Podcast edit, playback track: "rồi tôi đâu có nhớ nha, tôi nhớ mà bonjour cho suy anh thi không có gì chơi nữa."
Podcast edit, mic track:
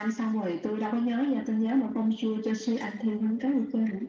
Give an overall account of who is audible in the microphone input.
echo only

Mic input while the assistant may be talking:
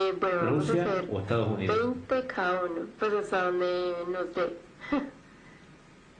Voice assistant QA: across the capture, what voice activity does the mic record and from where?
both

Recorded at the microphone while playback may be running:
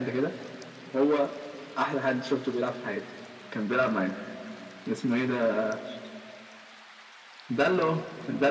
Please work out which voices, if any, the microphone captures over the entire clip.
echo only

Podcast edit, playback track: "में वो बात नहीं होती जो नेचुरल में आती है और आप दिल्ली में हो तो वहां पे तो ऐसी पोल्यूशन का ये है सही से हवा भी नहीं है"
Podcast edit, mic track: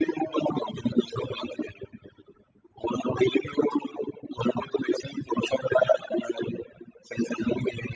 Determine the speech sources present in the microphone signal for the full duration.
echo only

